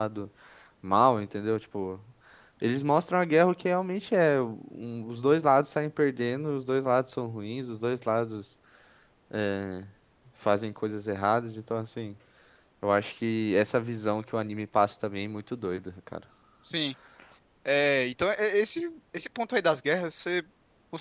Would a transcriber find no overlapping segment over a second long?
Yes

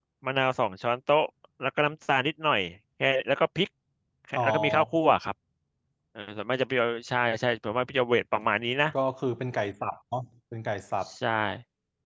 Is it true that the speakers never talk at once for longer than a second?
Yes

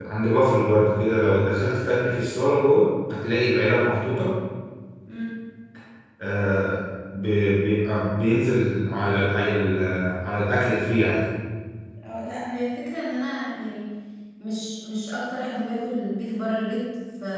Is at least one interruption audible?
No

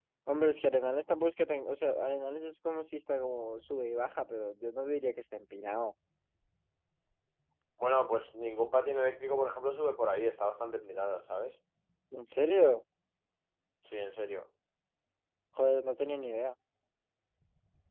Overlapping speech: No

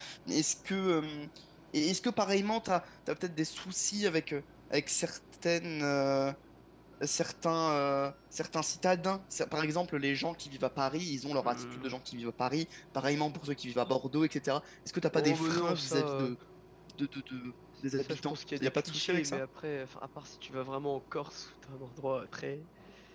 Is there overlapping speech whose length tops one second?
Yes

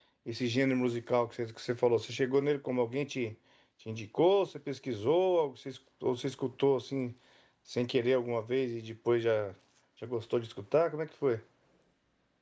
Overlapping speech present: No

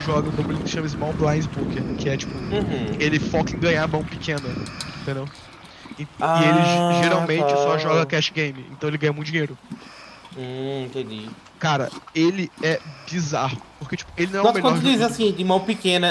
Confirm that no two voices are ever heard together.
No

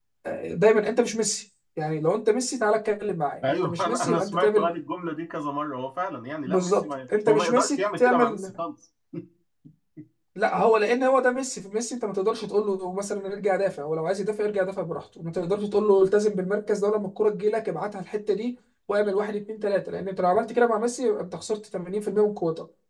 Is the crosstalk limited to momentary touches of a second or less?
No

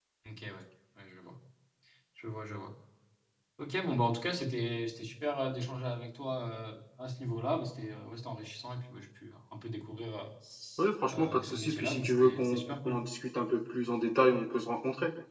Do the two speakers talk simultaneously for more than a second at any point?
Yes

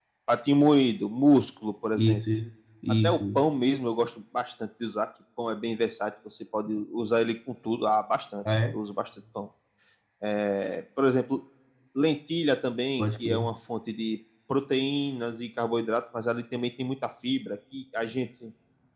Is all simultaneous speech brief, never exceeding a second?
Yes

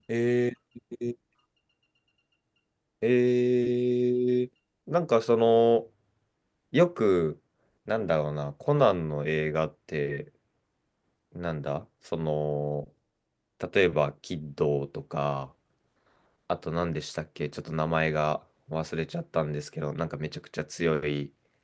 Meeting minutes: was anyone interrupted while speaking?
No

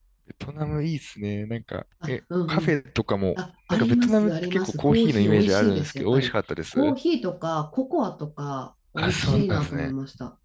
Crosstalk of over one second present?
Yes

